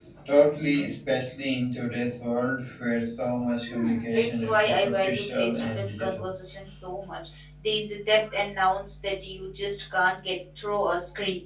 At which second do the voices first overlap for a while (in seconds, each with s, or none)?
3.7 s